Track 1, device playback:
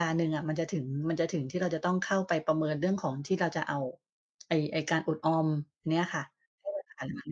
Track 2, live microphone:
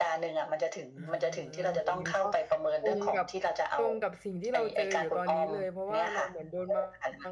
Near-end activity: present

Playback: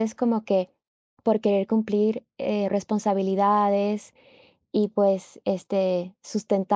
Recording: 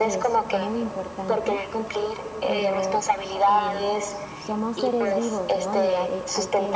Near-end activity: present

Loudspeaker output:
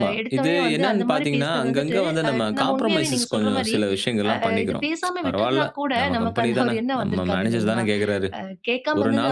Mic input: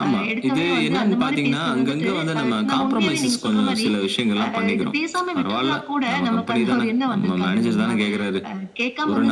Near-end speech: none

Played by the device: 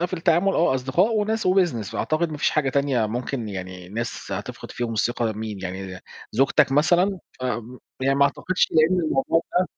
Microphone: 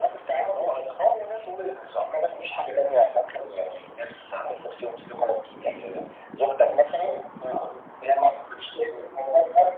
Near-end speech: none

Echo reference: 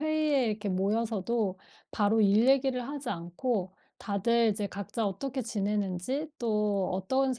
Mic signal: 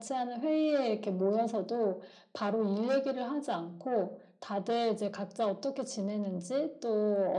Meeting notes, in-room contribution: none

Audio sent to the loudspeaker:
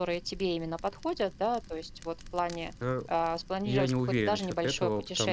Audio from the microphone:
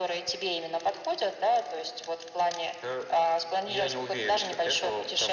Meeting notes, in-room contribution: none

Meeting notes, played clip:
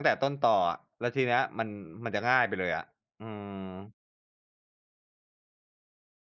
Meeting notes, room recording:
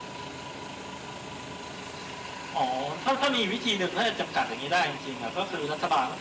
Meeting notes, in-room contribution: present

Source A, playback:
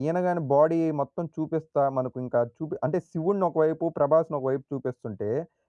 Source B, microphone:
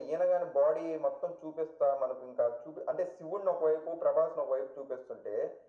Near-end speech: none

